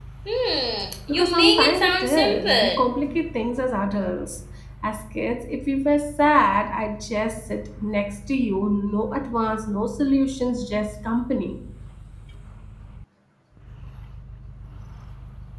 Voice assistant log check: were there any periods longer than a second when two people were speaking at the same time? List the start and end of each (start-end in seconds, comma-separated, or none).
1.1-2.8